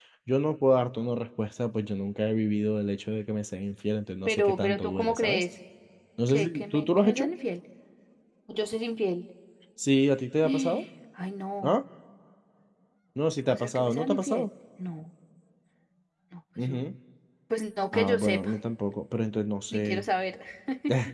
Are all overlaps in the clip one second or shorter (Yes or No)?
No